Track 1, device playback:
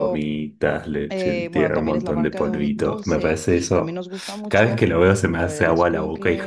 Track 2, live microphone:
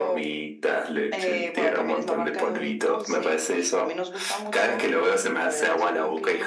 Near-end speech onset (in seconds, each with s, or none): none